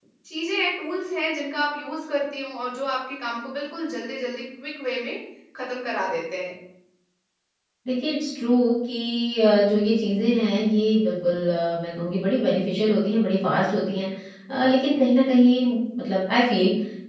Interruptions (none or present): none